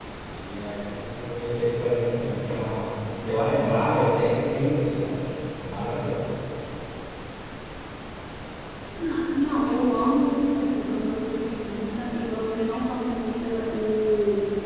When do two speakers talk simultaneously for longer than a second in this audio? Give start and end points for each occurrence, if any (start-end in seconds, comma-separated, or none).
none